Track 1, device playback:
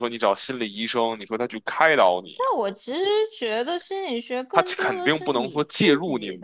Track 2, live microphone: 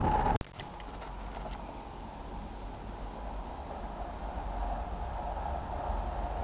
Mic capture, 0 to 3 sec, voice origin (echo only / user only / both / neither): neither